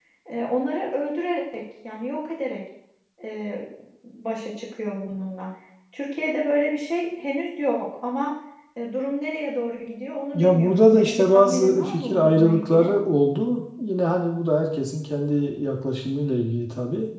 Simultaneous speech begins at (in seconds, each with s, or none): 10.3 s